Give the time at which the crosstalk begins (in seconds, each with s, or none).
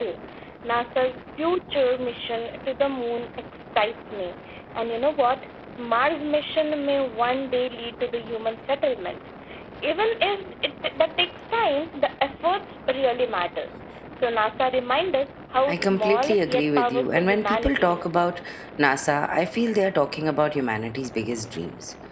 15.7 s